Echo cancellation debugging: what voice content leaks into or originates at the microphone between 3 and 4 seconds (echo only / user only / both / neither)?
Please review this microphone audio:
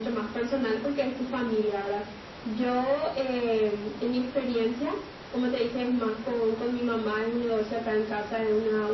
echo only